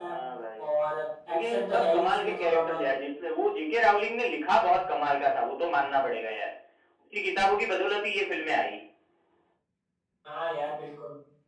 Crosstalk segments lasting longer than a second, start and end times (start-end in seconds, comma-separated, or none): 1.3-2.8